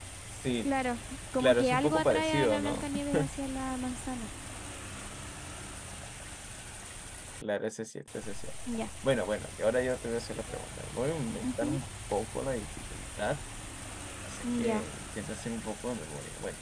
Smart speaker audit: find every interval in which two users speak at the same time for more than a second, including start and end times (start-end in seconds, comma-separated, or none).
1.4-2.9